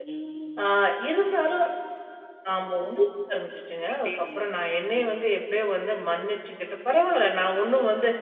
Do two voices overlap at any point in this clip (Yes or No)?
Yes